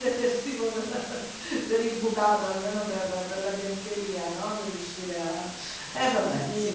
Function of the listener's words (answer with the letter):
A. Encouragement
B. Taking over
B